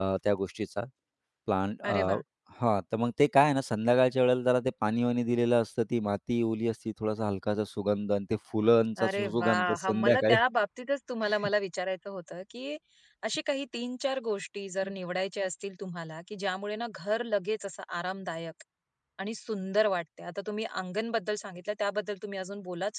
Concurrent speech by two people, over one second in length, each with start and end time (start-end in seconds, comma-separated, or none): 9.0-10.4